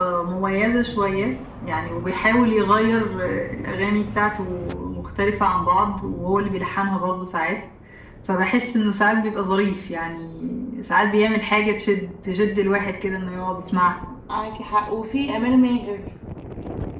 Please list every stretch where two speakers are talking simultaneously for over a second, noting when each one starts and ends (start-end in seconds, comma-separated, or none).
none